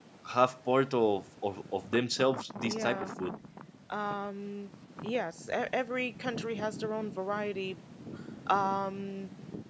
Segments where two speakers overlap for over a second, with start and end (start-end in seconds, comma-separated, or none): none